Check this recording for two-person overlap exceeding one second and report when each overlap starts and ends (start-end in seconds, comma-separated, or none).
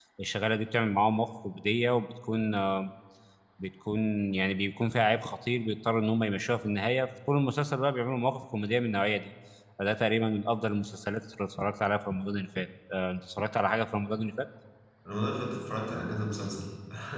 none